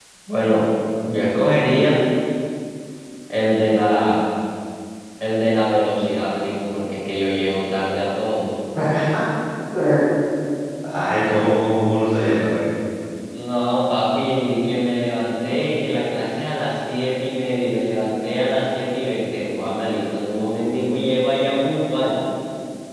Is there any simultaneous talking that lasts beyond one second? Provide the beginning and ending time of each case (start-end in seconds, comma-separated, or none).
none